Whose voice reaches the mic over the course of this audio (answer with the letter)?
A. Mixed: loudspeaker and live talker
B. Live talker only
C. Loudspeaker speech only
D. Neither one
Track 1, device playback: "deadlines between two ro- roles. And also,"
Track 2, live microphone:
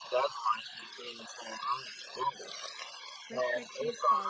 A